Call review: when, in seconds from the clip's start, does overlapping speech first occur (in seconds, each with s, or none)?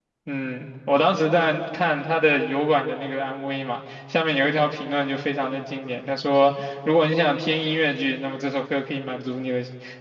none